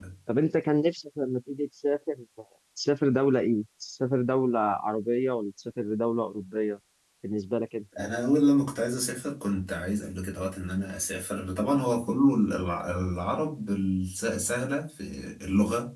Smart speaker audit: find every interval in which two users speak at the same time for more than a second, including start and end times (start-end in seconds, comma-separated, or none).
none